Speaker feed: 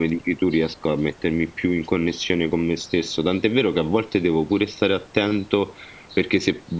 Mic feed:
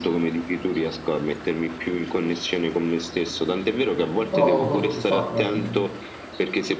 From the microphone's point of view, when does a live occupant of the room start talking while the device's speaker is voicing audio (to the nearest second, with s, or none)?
4 s